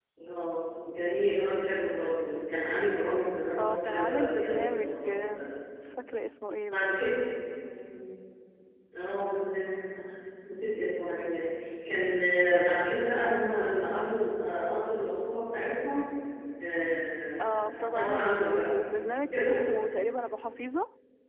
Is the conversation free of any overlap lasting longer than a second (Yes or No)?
No